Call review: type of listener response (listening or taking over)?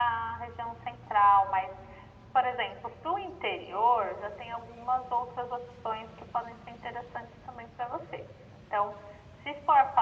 listening